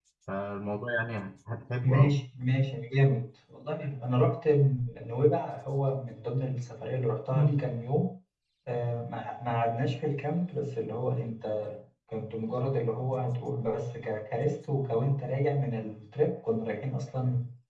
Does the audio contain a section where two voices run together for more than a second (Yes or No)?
No